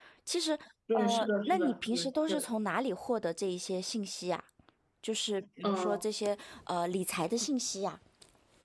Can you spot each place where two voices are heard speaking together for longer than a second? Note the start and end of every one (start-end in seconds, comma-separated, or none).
0.9-2.4